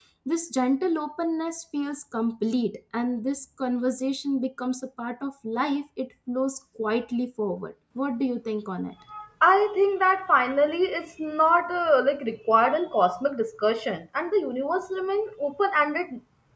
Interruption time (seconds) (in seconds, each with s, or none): none